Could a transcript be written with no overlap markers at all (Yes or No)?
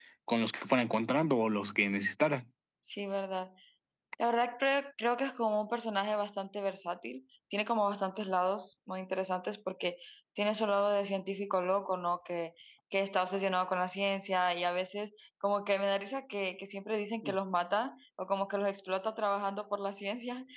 Yes